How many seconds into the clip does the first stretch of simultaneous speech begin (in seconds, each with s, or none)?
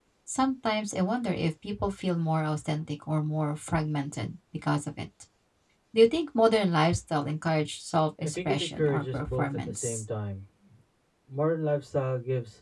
8.2 s